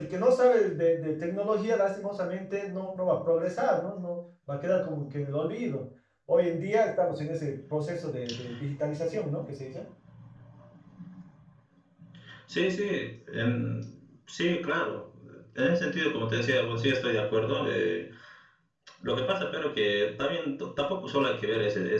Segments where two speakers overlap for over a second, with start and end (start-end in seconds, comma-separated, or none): none